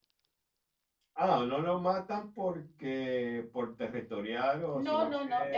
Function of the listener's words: taking over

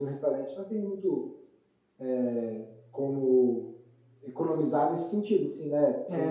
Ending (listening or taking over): taking over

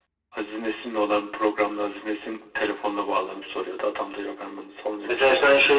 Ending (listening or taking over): taking over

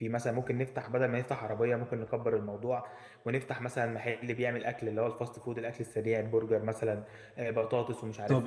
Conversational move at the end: taking over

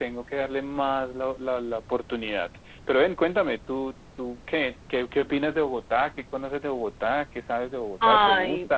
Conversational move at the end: taking over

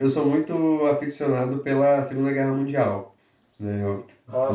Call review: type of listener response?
listening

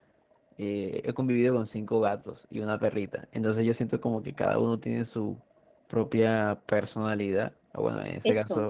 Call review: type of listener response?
listening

